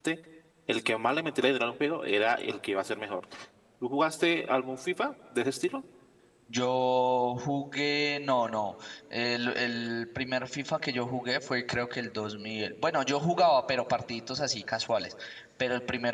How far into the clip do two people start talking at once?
none

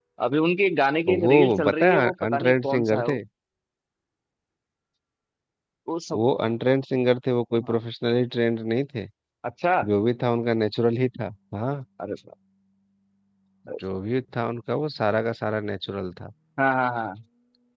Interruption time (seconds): 1 s

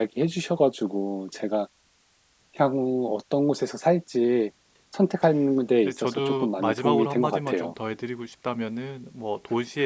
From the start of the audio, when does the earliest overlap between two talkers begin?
6 s

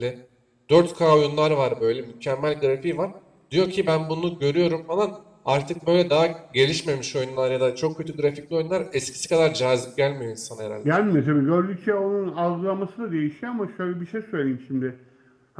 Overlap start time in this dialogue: none

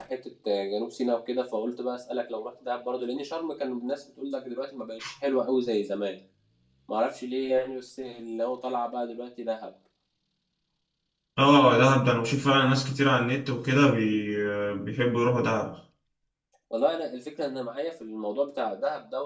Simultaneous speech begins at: none

